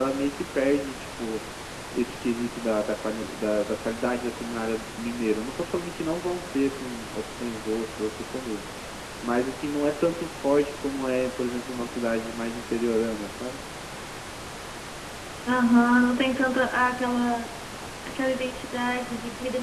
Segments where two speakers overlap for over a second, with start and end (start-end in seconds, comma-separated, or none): none